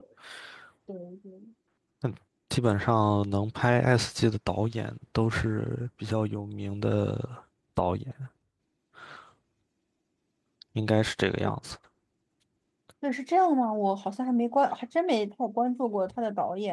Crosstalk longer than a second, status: none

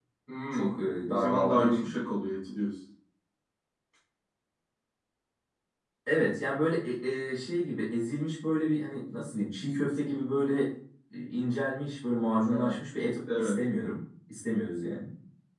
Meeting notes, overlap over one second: present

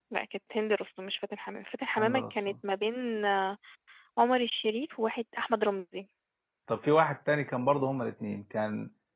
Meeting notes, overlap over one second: none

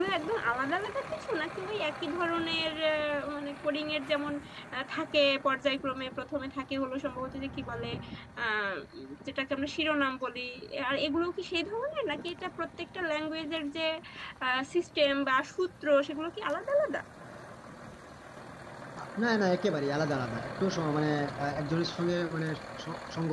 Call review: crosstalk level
none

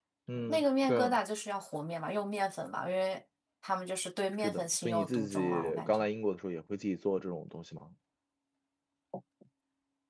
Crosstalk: present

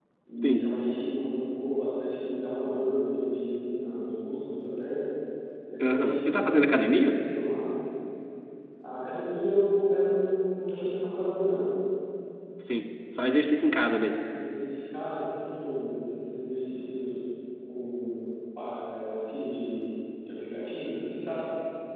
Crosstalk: present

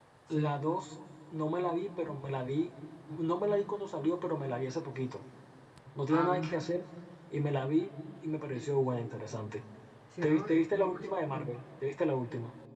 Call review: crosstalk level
present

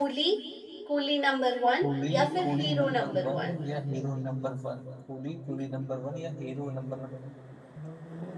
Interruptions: present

